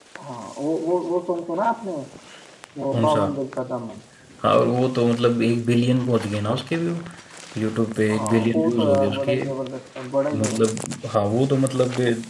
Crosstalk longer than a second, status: present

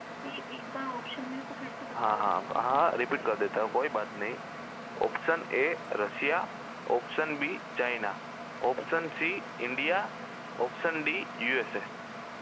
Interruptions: present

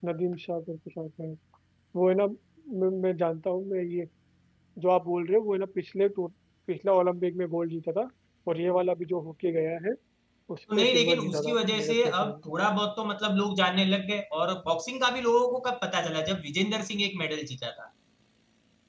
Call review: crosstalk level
present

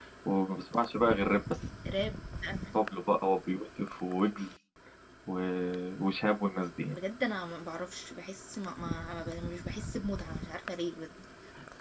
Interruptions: none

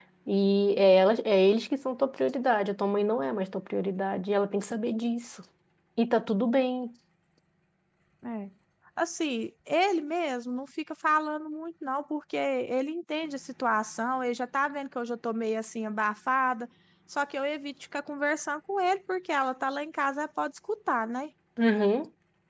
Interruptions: none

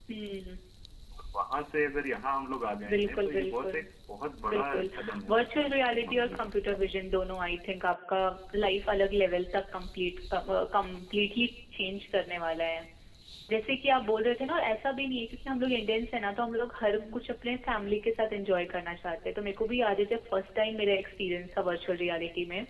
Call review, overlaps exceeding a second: present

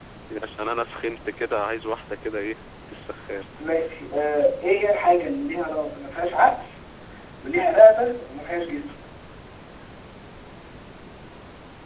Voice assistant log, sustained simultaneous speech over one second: none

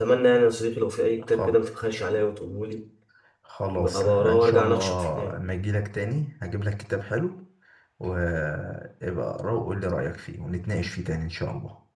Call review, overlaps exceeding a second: present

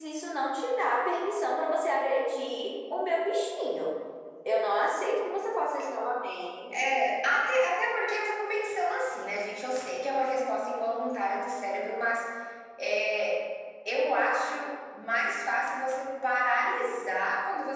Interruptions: none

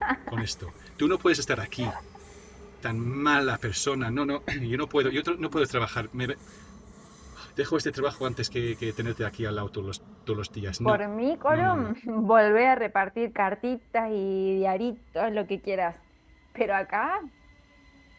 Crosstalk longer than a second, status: none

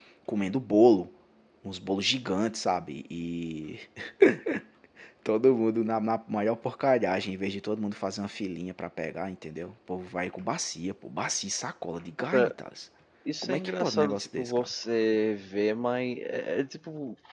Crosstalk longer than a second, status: present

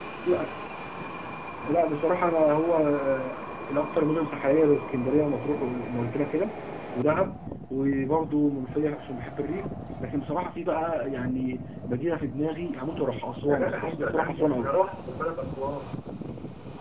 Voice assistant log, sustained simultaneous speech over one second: present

